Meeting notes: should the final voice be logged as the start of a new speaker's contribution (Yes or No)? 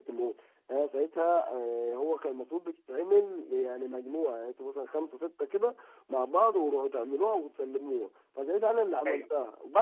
No